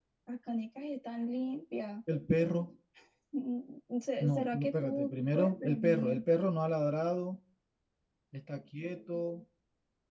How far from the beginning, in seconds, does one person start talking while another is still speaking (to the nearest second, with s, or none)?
4 s